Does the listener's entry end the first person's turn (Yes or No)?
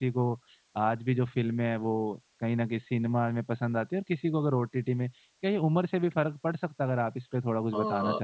Yes